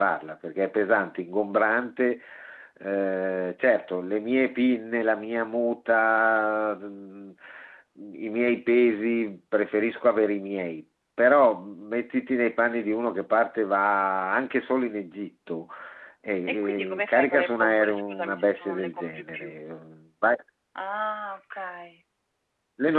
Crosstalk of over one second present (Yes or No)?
Yes